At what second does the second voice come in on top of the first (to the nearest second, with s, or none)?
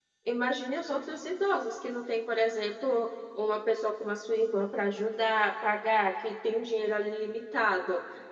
none